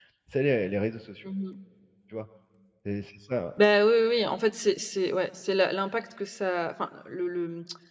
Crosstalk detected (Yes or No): No